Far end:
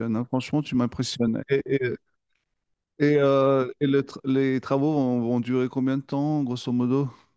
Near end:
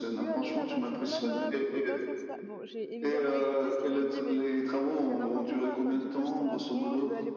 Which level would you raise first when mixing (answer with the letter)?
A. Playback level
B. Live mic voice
B